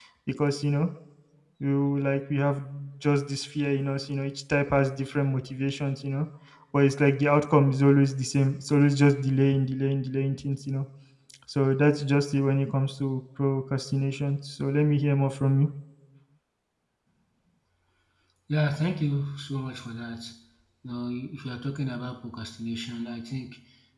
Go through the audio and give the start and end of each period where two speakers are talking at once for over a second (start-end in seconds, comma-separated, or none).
none